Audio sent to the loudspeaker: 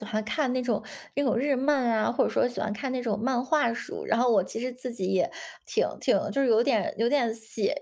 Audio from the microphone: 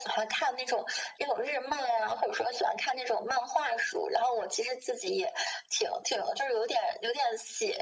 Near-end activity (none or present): none